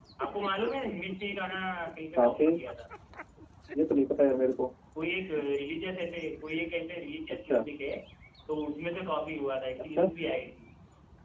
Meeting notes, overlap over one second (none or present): none